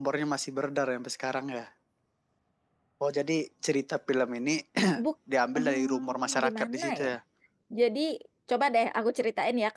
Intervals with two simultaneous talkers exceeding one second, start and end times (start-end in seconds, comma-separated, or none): 5.5-7.1